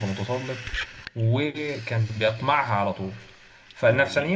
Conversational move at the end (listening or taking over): listening